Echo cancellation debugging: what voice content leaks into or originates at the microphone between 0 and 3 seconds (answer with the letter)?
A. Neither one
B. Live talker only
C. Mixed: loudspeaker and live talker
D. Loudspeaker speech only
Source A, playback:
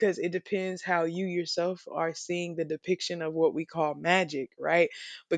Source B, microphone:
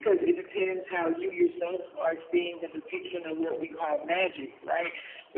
D